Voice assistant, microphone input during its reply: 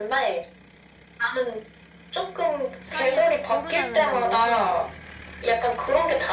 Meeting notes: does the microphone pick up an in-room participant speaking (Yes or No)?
Yes